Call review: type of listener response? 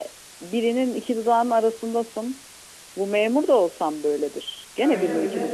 listening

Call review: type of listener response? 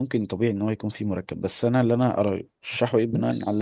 listening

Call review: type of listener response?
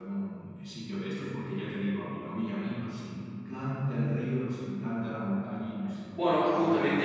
taking over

